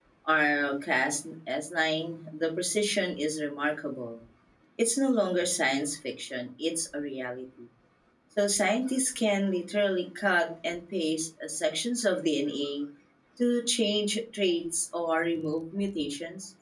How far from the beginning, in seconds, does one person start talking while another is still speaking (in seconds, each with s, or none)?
none